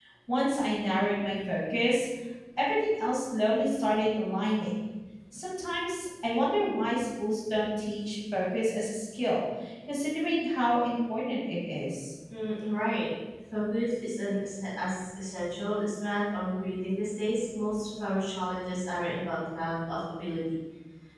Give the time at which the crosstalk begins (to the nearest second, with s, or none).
none